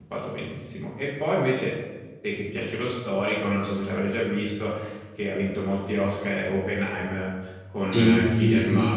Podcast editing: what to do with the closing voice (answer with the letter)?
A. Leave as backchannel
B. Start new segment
B